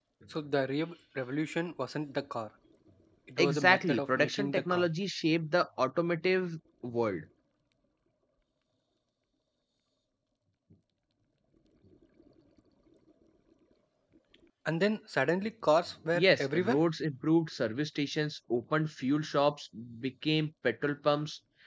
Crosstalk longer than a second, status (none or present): present